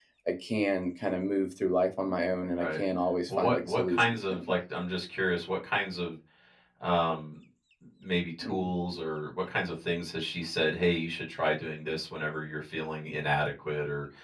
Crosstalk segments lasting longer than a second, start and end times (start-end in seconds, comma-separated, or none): 3.3-4.5